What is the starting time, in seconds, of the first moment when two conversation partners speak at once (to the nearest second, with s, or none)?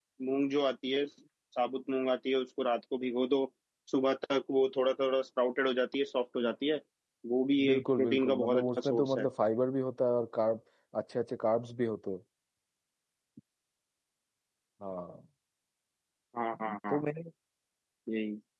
8 s